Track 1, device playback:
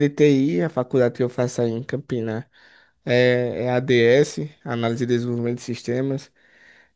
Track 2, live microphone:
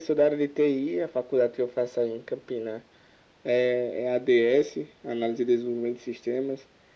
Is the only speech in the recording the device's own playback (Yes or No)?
Yes